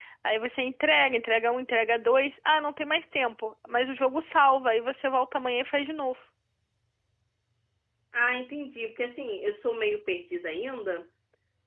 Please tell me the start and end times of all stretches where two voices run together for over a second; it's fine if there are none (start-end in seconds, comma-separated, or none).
none